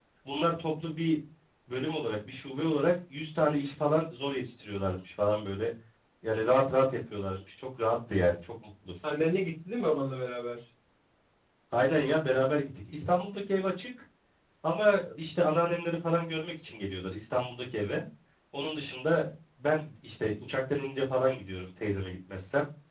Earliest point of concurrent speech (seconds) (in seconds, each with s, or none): none